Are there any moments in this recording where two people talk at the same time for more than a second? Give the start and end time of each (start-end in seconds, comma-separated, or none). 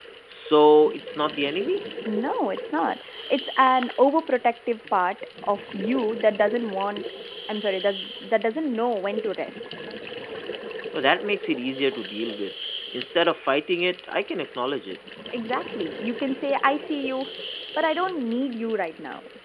none